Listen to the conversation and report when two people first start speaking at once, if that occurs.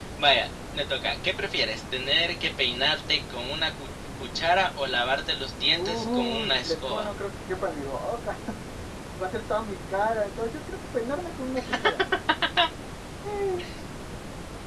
5.7 s

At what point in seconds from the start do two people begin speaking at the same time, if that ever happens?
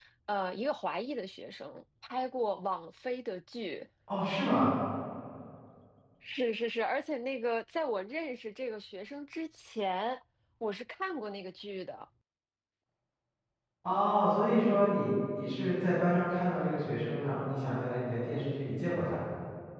none

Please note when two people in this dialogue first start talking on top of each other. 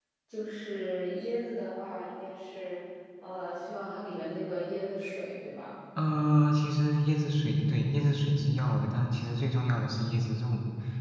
none

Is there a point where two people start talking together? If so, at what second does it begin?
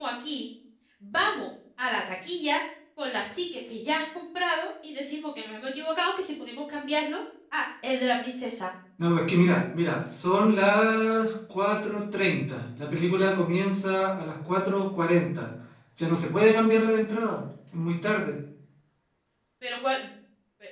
none

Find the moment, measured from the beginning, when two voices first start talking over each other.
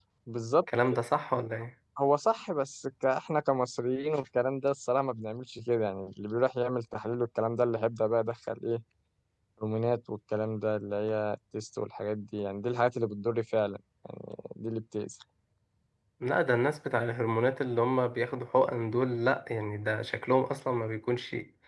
none

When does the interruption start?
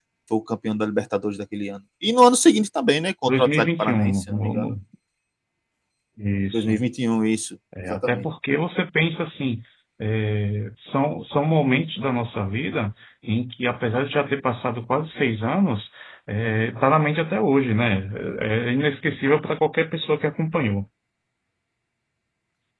3.3 s

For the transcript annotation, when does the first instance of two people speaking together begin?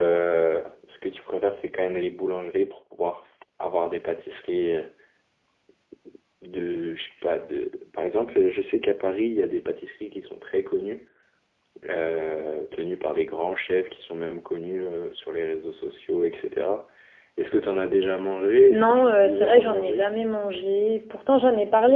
18.7 s

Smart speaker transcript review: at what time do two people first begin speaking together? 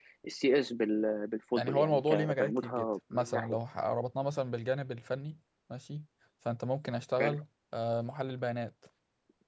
1.6 s

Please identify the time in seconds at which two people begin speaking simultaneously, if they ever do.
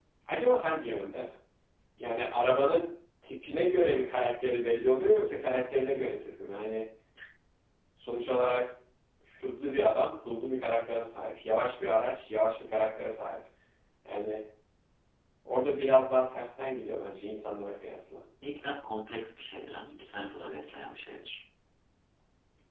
none

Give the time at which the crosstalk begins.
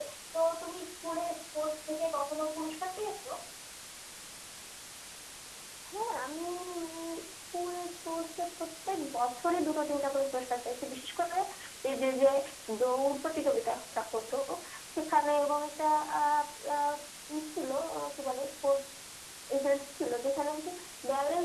none

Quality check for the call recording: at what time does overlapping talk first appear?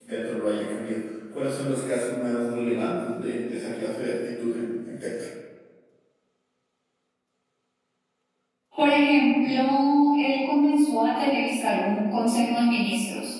none

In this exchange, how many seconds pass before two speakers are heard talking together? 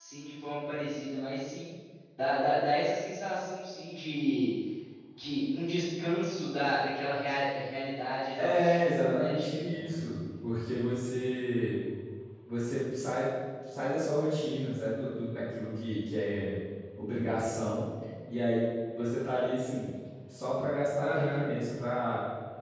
8.4 s

